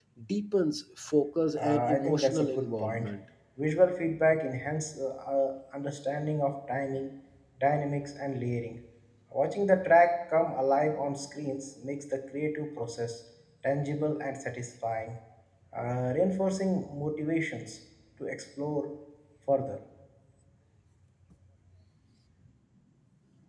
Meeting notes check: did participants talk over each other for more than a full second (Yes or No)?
Yes